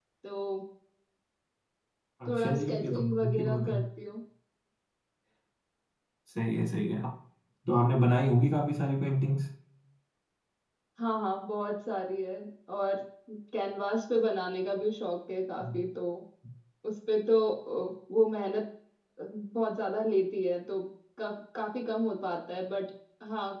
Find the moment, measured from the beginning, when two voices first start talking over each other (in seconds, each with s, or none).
2.3 s